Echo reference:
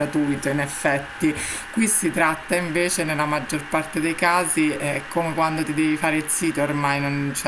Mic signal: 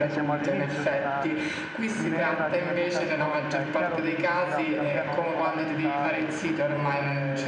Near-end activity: present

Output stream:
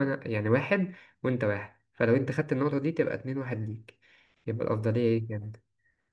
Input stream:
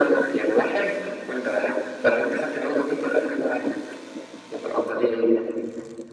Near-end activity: none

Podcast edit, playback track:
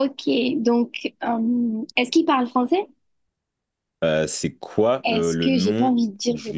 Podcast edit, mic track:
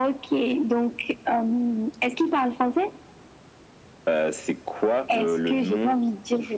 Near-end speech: none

